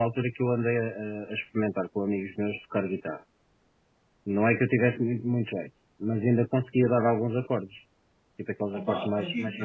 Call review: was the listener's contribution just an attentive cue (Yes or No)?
No